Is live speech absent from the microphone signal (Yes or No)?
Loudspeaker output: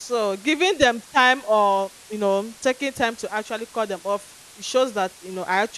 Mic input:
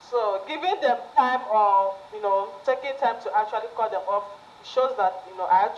Yes